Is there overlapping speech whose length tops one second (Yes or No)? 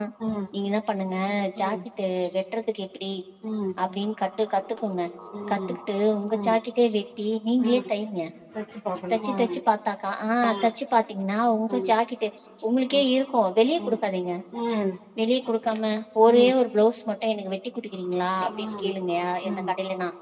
No